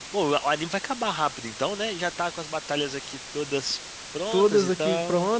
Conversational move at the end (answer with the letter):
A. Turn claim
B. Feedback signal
A